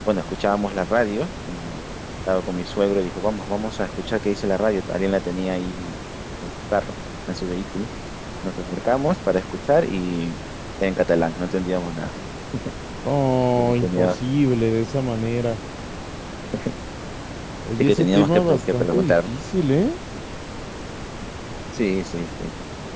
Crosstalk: present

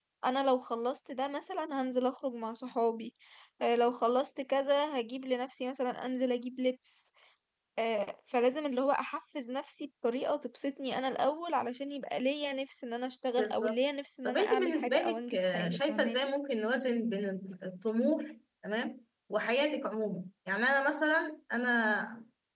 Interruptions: present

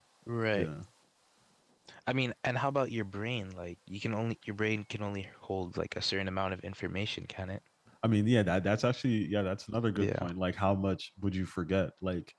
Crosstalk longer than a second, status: none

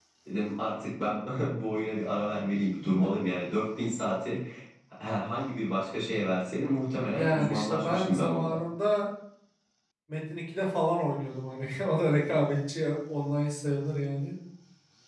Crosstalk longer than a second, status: present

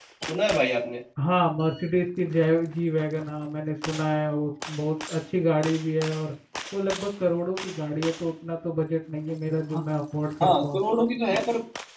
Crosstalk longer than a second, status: none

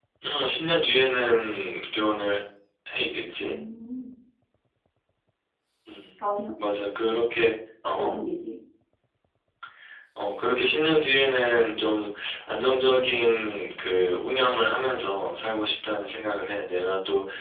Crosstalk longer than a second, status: none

